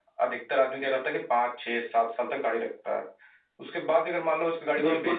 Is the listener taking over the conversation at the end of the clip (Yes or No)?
Yes